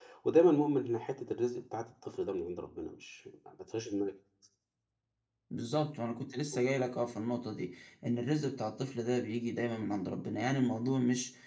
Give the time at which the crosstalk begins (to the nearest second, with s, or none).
none